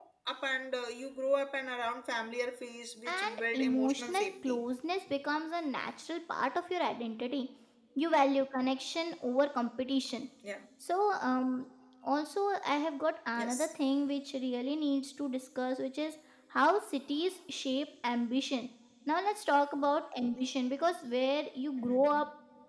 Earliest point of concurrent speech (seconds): 3.1 s

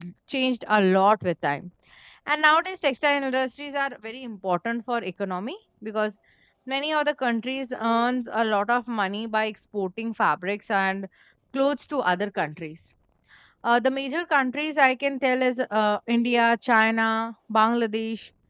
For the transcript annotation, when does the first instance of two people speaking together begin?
none

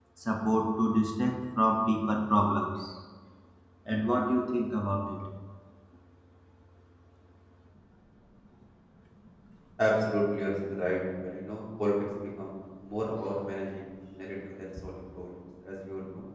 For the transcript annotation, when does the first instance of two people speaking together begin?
none

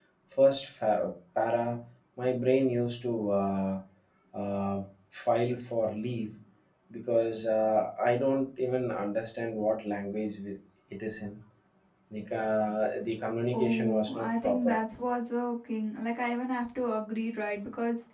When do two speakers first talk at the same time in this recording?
13.5 s

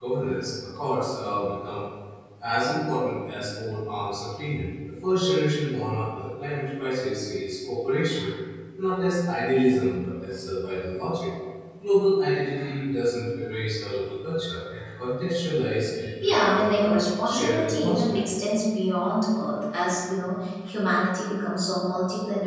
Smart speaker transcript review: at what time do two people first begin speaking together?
16.2 s

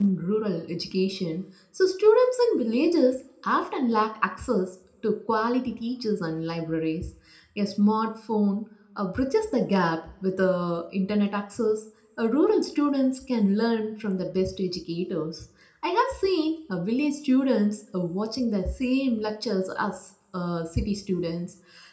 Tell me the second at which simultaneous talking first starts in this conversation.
none

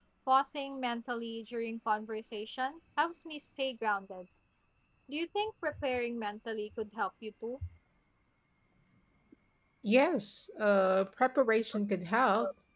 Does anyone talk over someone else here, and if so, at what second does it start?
none

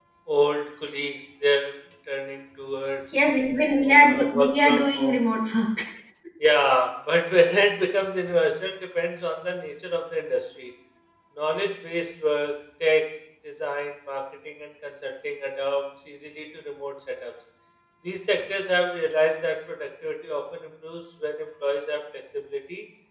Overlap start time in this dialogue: 3.9 s

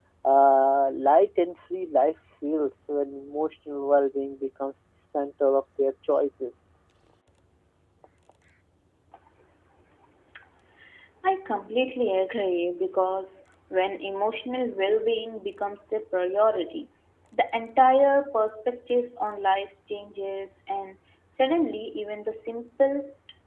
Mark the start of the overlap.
none

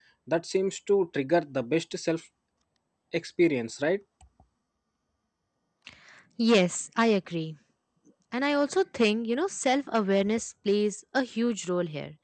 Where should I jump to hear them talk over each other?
none

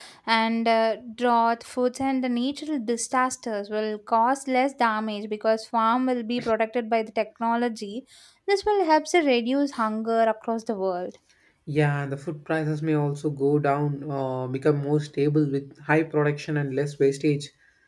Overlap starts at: none

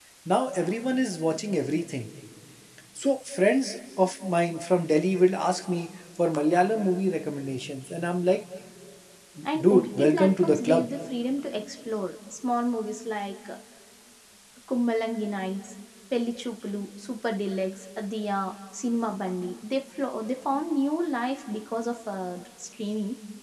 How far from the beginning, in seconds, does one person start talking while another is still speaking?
9.6 s

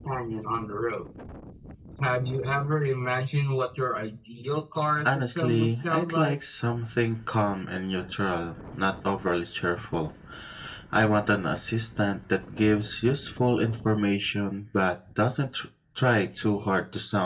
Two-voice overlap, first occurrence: 5.0 s

